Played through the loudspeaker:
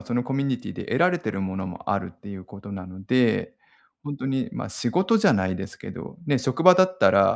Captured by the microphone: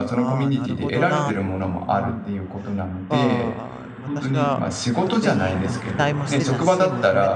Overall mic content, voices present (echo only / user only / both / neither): both